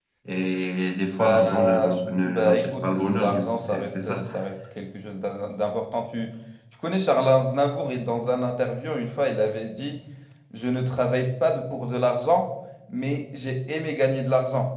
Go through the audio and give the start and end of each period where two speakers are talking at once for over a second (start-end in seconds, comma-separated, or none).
1.2-4.2